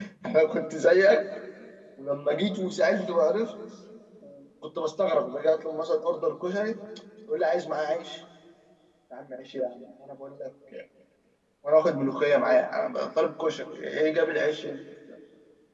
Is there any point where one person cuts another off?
No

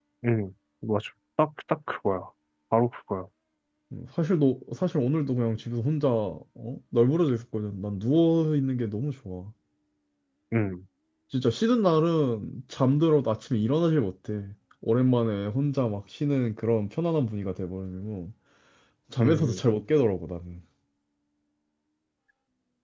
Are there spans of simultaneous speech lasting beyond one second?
No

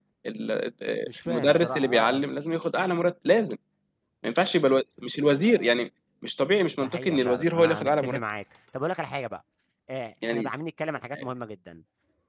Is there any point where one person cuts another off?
Yes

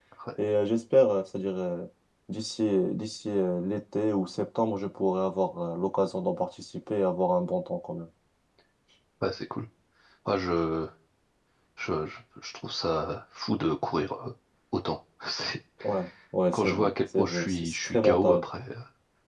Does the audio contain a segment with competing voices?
Yes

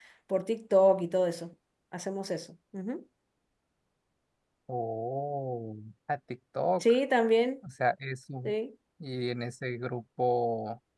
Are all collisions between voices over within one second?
Yes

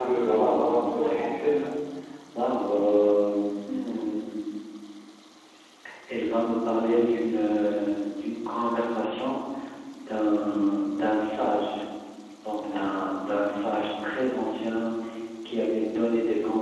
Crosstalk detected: Yes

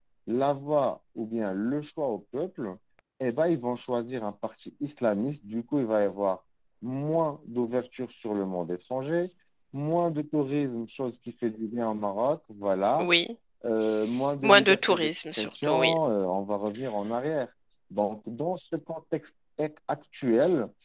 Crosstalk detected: Yes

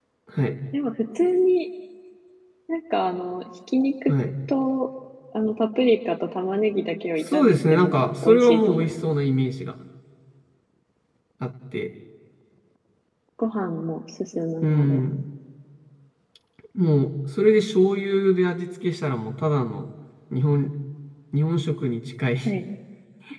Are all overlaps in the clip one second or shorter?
No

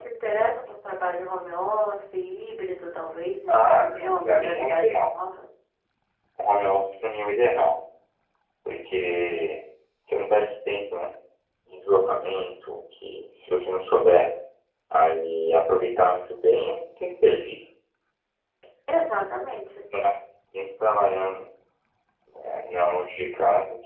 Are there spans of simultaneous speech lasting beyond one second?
Yes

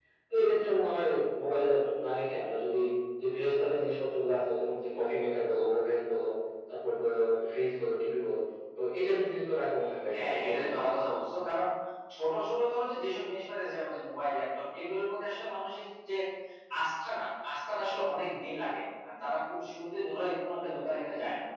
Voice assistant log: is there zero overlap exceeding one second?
Yes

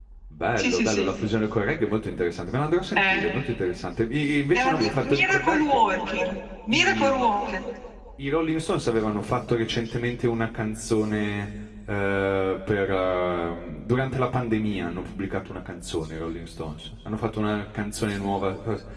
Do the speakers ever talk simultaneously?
Yes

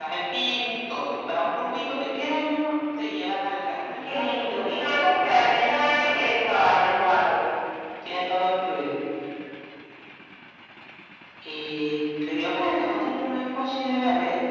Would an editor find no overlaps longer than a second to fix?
No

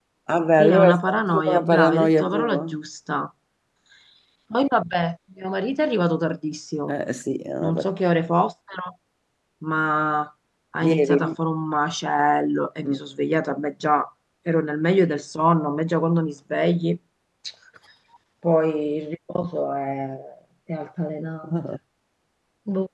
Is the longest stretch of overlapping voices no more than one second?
No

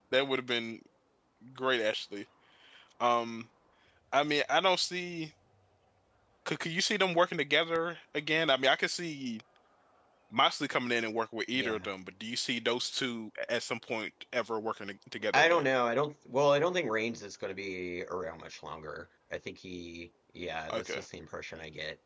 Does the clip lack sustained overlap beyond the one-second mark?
Yes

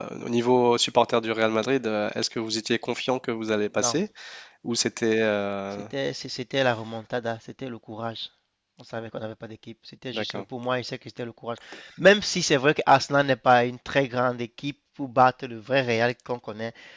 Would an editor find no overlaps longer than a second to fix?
Yes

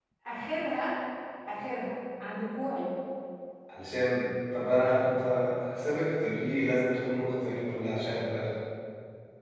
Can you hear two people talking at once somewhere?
No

